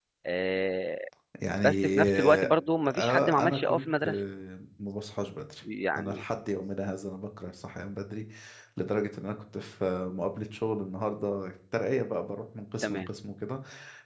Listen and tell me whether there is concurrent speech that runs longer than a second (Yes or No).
Yes